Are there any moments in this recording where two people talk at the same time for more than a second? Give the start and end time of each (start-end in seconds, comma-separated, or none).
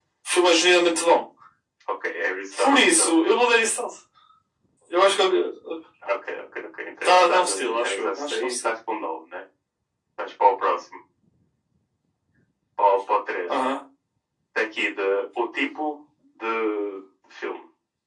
7.0-8.7